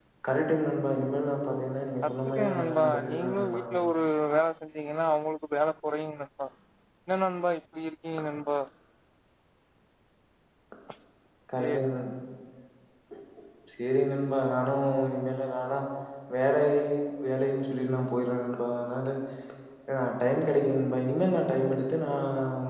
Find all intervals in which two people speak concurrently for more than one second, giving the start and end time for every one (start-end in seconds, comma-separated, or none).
2.0-3.6